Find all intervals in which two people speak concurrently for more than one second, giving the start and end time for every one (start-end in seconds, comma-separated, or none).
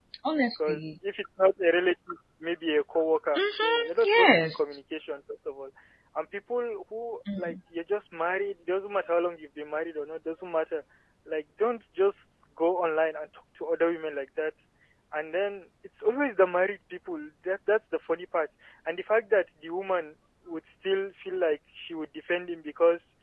3.4-4.6